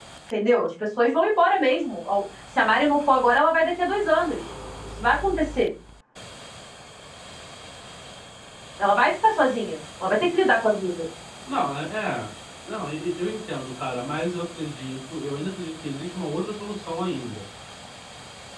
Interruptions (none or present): none